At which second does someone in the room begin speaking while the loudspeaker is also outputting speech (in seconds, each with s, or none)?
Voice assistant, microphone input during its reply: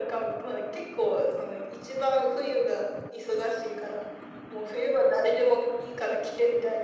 none